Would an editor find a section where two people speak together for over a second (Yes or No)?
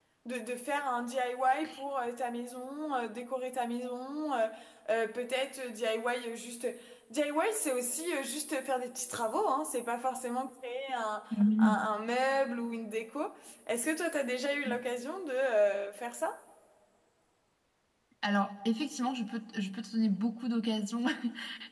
No